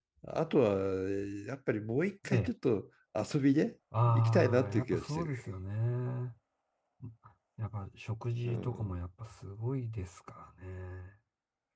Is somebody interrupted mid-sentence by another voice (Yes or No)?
Yes